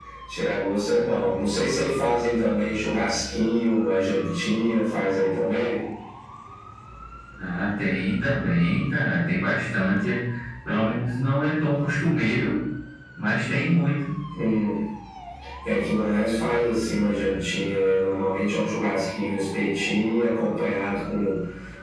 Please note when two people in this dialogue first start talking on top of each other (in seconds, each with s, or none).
none